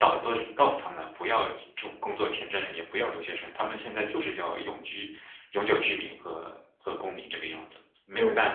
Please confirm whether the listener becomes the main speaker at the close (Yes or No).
Yes